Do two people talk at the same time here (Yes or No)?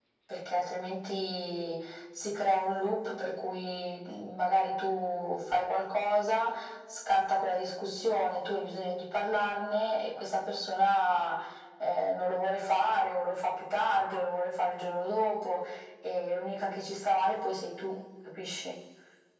No